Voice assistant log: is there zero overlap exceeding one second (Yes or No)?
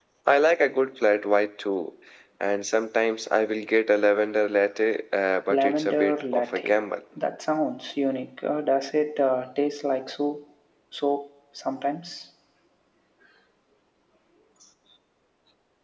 No